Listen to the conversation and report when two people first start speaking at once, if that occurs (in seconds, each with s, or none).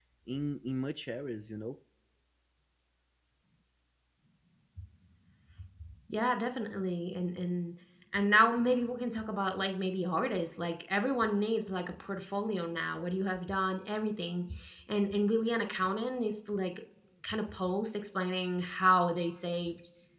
none